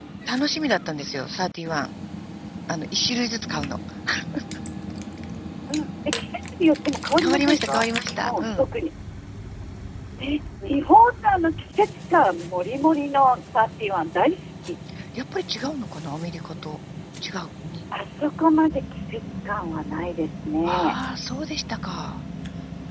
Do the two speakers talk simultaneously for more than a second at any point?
Yes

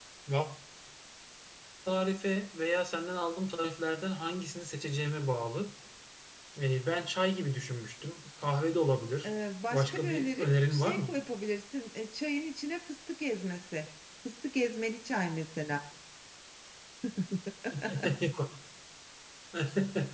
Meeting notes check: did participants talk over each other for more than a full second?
Yes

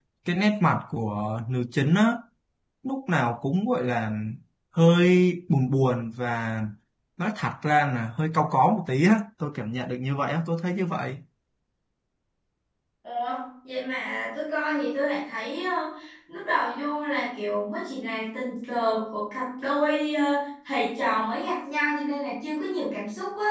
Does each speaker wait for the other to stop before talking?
Yes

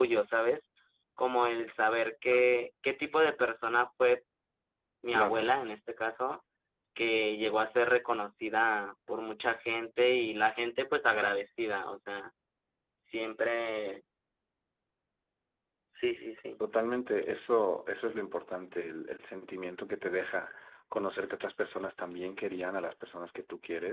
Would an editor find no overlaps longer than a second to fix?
Yes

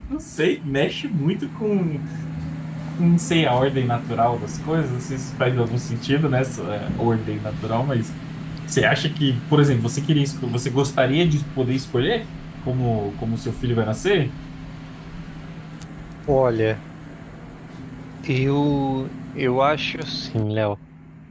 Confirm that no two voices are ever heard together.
Yes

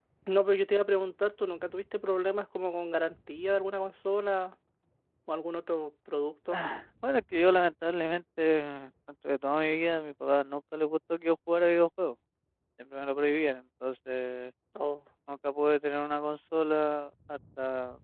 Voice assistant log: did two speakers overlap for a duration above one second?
No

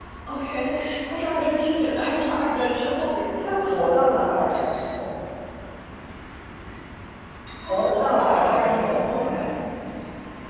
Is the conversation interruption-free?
No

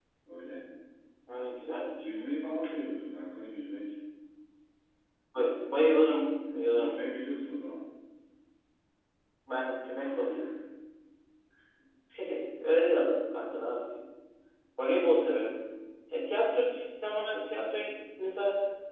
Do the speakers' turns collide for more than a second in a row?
No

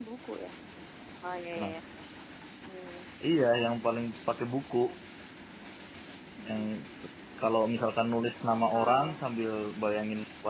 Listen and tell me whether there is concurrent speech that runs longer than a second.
No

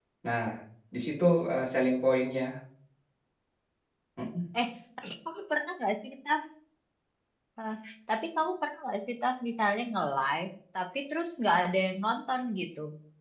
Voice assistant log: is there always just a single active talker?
Yes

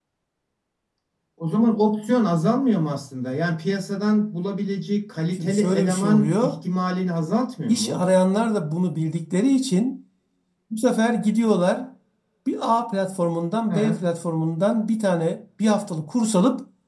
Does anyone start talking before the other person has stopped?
Yes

